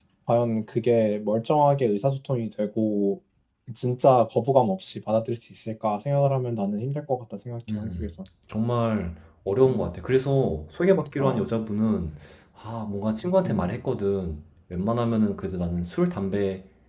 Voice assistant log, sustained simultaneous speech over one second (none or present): none